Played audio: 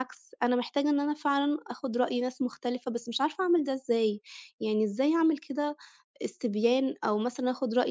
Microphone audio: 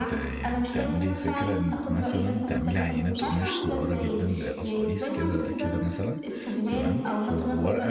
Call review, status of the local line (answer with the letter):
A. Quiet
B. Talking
B